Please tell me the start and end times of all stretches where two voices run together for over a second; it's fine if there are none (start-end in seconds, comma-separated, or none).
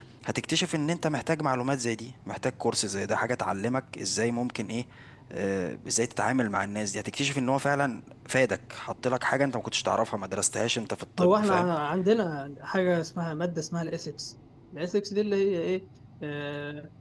none